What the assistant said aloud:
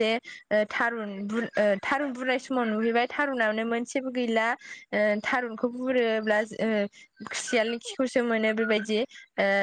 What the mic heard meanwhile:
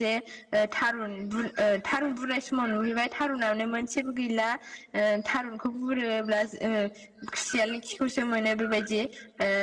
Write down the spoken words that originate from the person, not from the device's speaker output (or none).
none